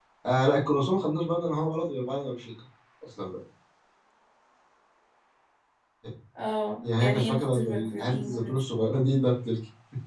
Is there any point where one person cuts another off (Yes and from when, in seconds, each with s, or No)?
Yes, from 6.8 s